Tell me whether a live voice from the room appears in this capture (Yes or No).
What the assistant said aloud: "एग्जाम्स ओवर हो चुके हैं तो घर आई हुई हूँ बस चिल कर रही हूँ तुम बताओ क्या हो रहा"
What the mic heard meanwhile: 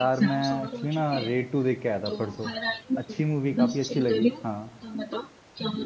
Yes